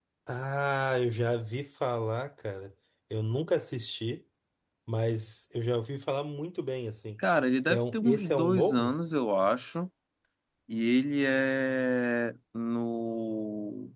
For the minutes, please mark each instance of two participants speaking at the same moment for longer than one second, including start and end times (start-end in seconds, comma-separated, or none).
7.7-8.9